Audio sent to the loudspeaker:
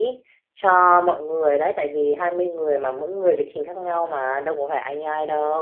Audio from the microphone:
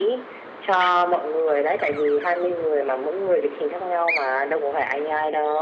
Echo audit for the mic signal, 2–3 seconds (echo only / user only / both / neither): echo only